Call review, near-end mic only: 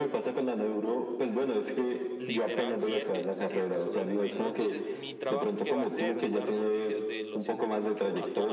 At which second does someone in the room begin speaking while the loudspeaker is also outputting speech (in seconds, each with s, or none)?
2.2 s